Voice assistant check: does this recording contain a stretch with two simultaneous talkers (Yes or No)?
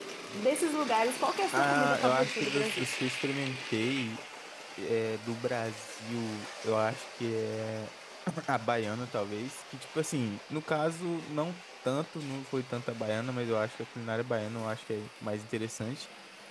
Yes